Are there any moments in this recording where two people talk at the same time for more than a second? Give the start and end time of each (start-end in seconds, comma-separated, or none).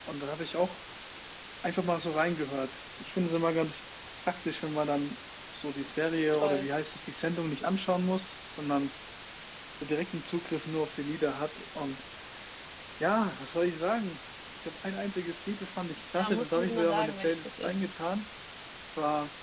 16.2-17.9